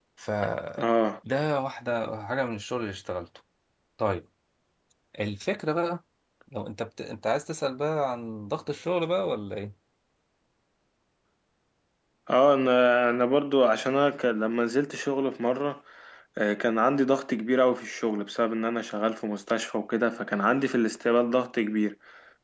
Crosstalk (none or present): none